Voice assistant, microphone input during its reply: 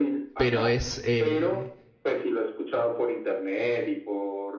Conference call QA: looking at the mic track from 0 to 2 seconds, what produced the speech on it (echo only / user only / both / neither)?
both